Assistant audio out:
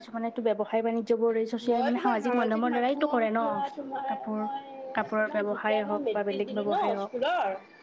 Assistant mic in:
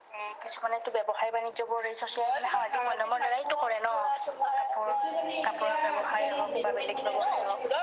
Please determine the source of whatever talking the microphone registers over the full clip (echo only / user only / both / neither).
both